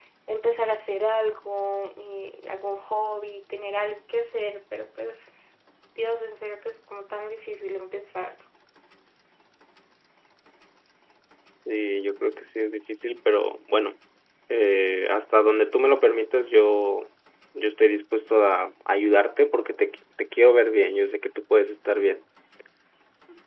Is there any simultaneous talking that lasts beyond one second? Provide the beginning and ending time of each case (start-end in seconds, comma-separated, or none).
none